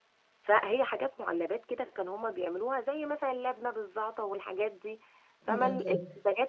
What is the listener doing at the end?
listening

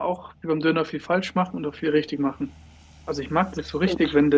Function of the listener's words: listening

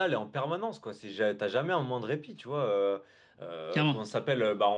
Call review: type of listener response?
listening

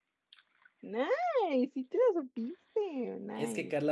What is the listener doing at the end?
taking over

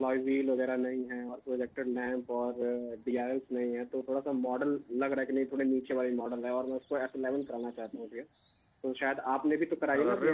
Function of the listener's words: listening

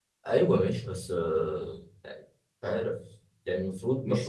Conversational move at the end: taking over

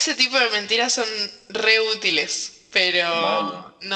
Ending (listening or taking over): listening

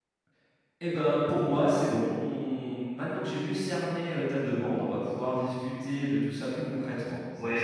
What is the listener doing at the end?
taking over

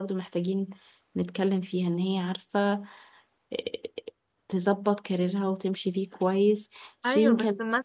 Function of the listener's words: taking over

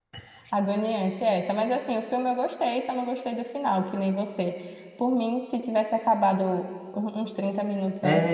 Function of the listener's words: taking over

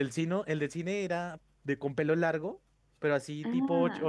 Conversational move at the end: listening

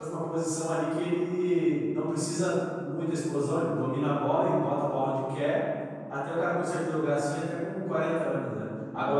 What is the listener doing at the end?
listening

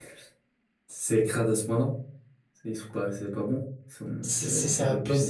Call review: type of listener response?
taking over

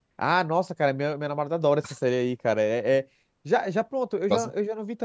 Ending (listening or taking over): listening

